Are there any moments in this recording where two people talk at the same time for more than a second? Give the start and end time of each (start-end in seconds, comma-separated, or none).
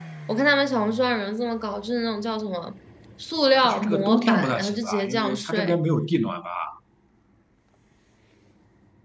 3.5-5.8